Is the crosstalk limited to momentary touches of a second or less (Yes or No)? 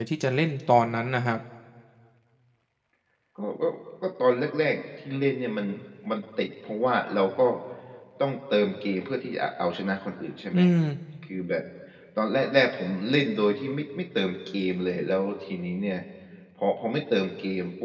Yes